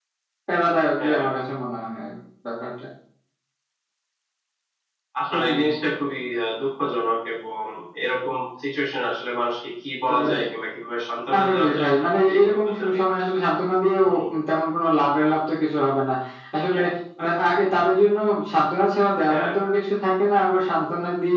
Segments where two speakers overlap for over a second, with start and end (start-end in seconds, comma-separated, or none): 11.3-13.0